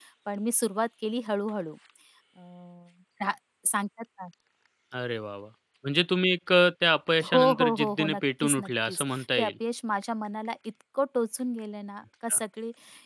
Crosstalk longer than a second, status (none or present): present